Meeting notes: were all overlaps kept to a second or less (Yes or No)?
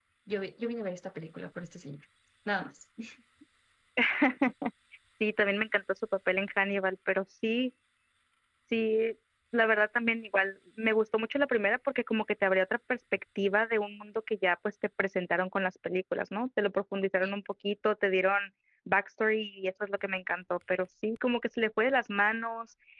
Yes